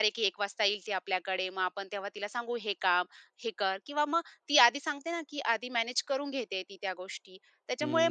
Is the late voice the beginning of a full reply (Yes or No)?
Yes